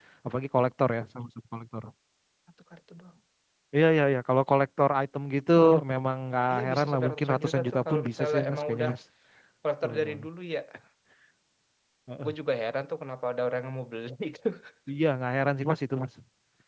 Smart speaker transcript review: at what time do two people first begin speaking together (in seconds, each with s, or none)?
6.5 s